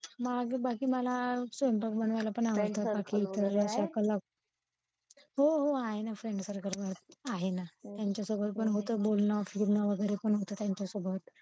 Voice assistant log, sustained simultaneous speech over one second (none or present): present